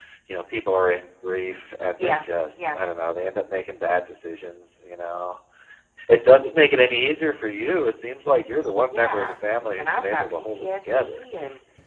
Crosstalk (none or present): present